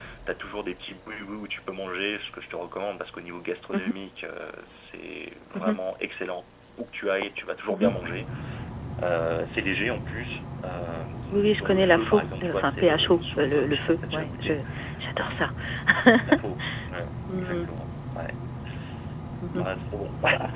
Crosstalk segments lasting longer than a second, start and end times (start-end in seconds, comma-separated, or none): 11.4-14.5